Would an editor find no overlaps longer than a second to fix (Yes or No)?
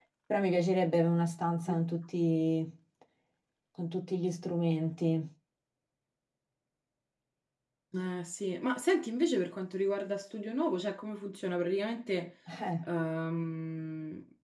Yes